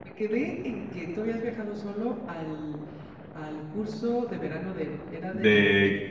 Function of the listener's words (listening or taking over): taking over